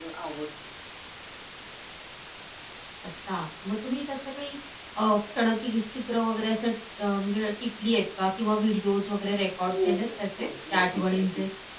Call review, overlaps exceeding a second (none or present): present